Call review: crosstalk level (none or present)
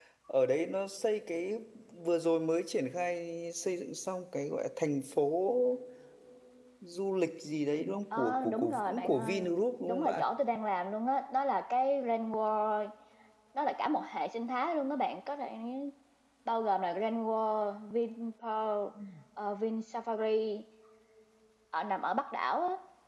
present